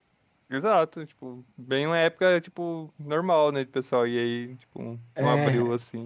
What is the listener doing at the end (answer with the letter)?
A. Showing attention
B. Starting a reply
B